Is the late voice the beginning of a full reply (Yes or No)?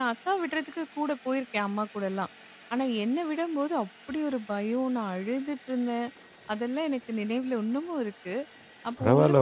Yes